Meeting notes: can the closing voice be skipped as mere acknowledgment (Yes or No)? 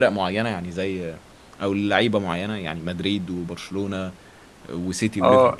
No